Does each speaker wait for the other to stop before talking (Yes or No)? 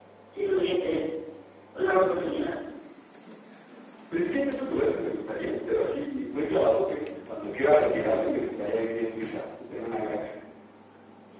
Yes